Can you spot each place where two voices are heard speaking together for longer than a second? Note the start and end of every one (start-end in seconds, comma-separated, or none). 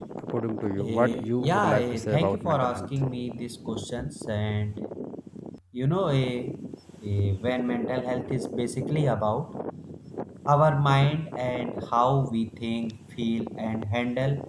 0.8-2.9